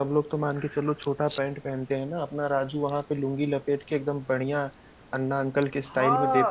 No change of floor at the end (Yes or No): No